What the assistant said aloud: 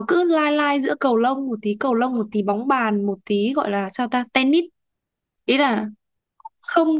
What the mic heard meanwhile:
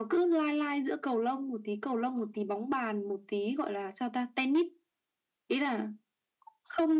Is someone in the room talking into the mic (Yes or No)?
No